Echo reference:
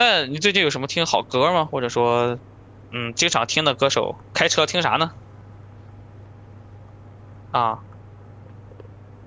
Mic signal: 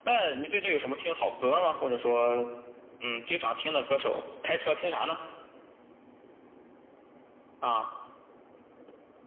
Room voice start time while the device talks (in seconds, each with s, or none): none